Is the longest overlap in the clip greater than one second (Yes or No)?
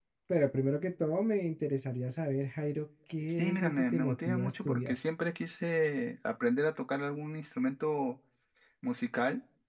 Yes